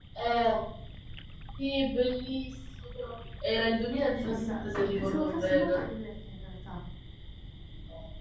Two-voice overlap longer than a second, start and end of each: 4.2-5.8

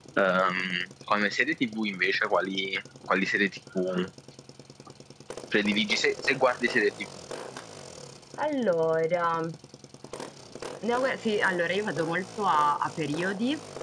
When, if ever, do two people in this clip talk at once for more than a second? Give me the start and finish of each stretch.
none

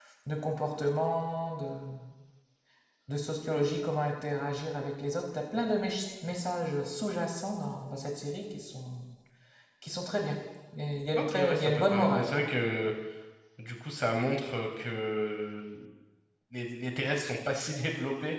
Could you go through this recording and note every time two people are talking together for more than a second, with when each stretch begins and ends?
11.2-12.4

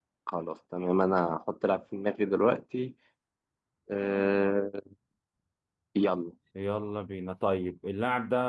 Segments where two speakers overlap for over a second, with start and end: none

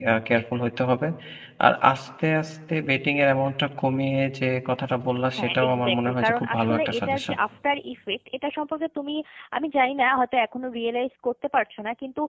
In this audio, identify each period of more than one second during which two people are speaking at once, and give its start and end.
5.3-7.4

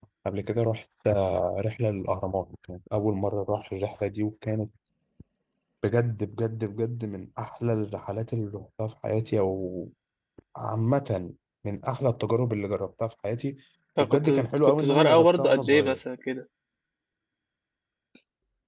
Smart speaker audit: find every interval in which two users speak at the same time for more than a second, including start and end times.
14.6-16.0

